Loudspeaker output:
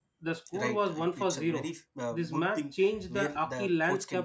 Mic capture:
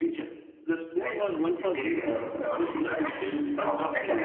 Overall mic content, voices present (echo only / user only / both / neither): both